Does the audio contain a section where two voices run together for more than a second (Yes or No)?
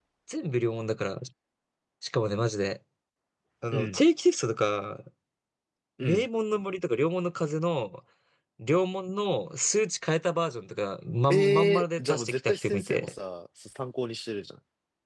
Yes